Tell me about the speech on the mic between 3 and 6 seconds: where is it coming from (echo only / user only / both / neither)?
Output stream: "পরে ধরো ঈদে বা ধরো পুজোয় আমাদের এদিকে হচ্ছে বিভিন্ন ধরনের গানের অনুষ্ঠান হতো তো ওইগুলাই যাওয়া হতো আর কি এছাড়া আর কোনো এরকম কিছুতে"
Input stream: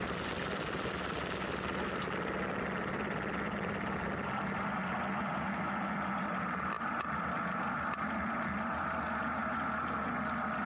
neither